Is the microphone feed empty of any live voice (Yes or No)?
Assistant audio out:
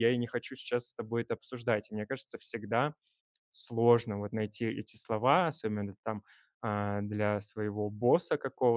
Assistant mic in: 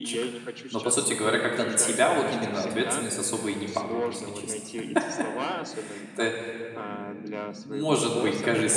No